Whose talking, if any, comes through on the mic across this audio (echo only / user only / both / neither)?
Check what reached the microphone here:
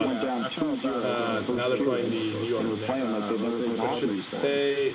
both